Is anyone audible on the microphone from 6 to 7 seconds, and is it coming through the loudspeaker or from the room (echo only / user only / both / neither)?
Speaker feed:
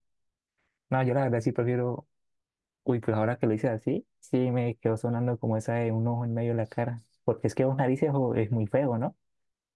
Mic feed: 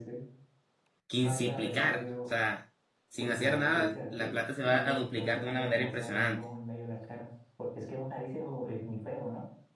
both